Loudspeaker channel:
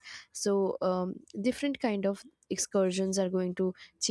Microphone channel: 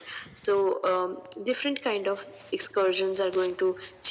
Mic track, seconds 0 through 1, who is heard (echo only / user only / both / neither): echo only